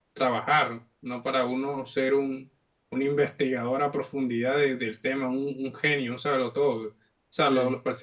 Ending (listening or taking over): listening